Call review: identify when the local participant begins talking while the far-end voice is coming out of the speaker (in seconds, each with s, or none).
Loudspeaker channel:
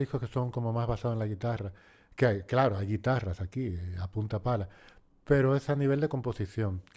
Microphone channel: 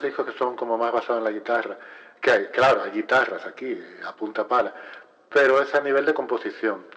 none